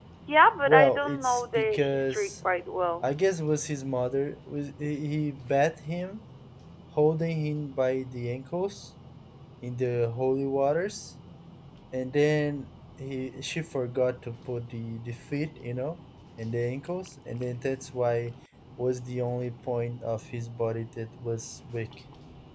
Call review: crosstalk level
present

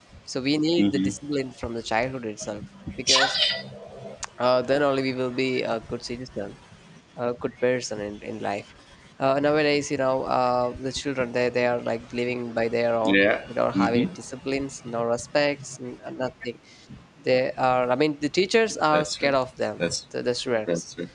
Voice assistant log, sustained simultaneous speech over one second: none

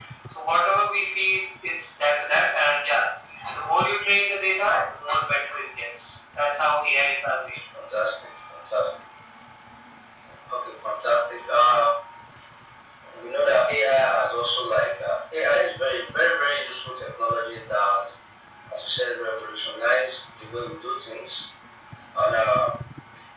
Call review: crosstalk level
none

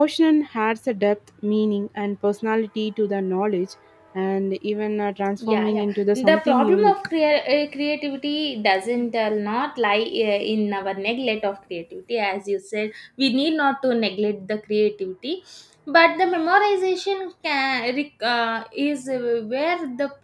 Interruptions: present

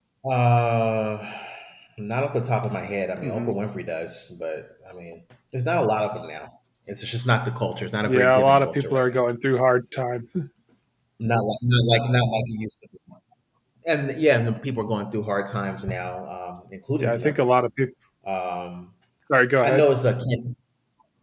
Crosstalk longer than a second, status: present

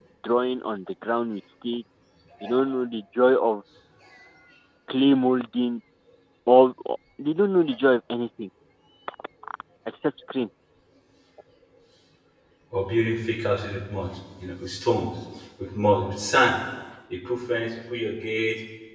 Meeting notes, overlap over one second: none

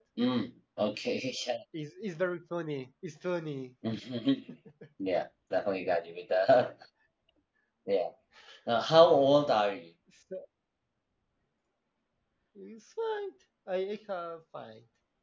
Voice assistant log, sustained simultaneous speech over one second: none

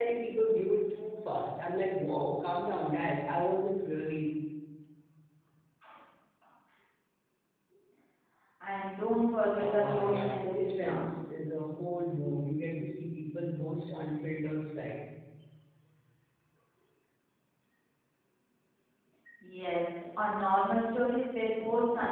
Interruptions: present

